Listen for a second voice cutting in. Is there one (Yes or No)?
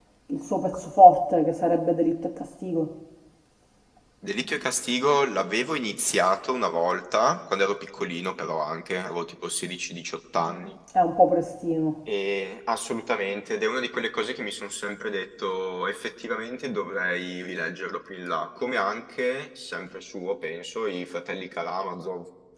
No